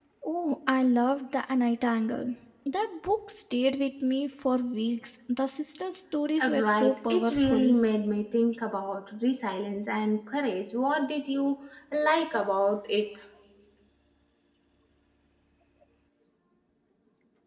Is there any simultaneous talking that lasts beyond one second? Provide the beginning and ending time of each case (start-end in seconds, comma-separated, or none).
6.4-7.8